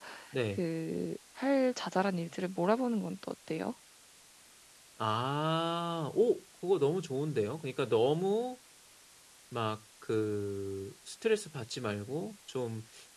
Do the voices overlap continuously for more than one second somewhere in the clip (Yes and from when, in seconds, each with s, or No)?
No